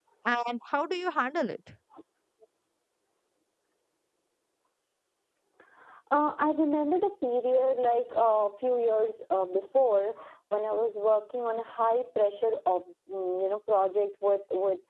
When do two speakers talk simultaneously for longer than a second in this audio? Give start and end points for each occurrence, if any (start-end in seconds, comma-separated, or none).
none